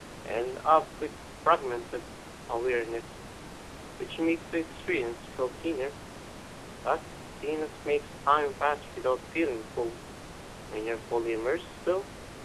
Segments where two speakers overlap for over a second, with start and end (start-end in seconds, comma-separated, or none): none